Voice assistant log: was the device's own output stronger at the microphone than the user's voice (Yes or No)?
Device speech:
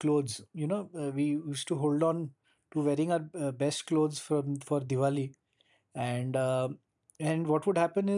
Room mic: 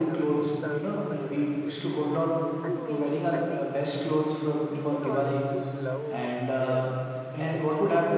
Yes